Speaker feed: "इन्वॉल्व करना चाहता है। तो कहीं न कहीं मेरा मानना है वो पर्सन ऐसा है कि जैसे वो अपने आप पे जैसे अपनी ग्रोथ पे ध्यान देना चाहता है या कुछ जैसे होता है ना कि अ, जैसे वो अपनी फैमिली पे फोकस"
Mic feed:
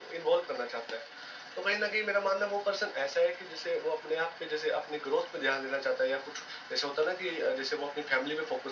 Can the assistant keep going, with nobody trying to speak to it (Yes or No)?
Yes